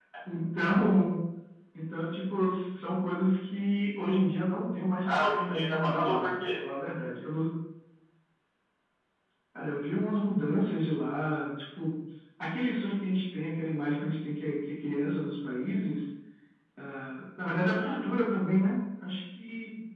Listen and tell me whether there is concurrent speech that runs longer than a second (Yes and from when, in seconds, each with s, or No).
Yes, from 5.0 s